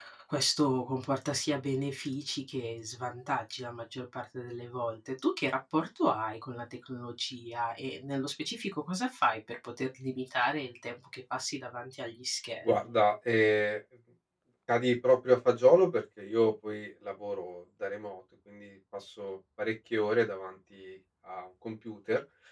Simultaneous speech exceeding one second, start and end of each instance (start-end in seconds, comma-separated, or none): none